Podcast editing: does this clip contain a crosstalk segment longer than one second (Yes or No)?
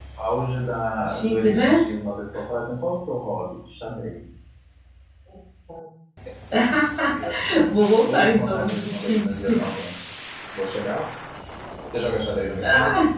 Yes